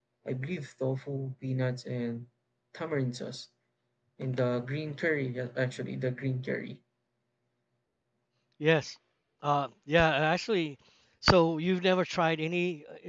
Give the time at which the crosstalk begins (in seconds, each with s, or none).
none